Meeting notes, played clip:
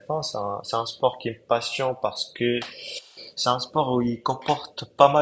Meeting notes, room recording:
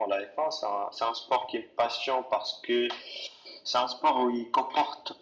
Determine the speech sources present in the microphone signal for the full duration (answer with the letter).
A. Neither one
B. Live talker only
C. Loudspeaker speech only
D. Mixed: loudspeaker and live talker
C